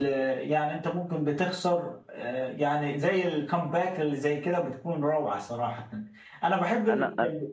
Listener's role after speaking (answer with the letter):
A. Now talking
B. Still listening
B